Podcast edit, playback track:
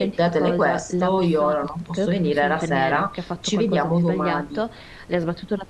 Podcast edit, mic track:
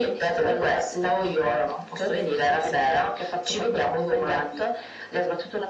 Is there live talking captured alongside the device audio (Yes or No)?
No